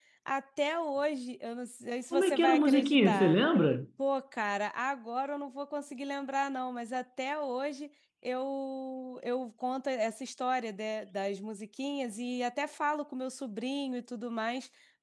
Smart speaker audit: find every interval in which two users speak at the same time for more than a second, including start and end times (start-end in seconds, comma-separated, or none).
2.1-3.4